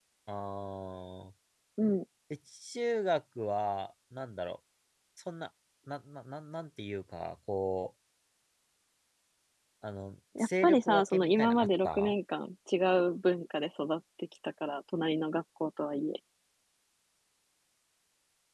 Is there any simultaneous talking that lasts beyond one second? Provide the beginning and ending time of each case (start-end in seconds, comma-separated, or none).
10.4-12.1